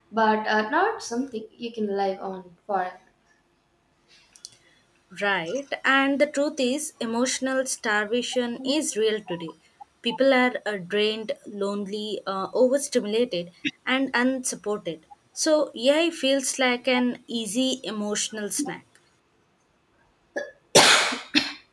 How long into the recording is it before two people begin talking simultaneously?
none

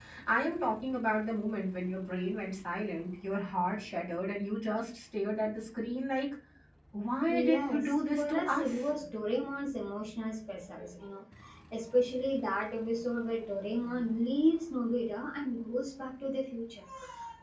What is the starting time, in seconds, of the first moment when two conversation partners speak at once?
7.3 s

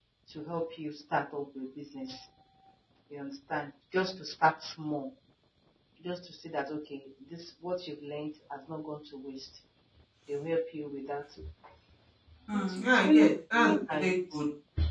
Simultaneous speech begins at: 12.5 s

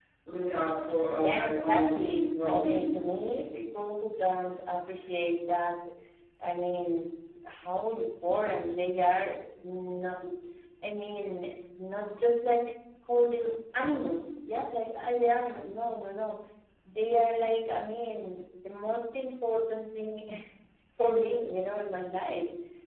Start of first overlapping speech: 1.2 s

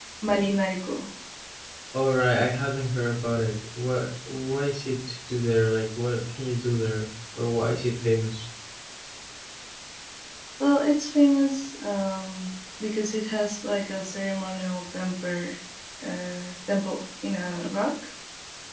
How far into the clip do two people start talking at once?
none

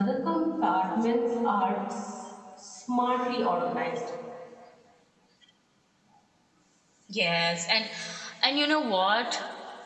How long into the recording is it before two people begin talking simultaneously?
none

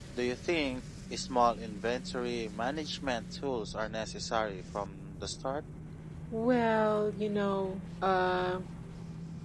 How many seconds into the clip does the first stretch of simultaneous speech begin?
none

